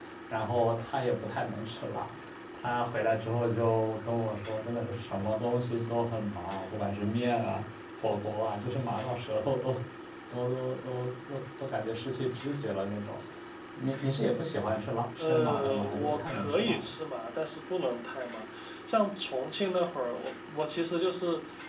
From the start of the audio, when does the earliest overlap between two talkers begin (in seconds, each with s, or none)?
15.2 s